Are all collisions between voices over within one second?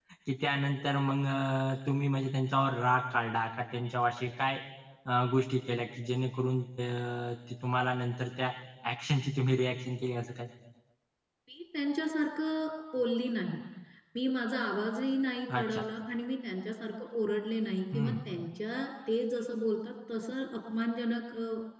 Yes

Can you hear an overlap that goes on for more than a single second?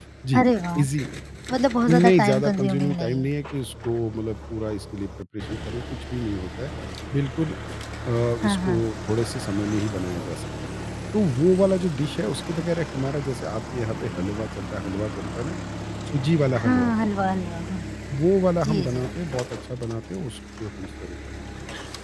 Yes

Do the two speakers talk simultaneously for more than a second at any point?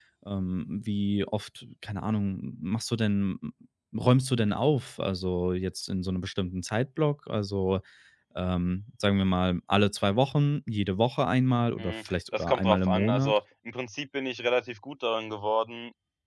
Yes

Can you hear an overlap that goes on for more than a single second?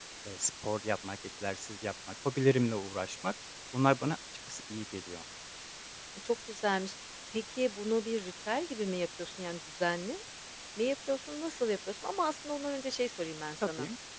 No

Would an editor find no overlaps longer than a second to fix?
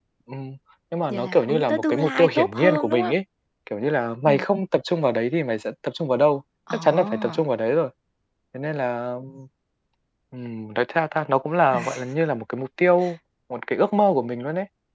No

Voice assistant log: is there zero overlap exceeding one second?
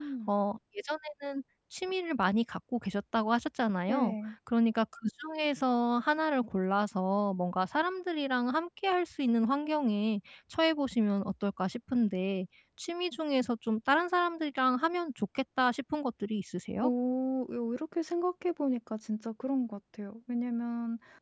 Yes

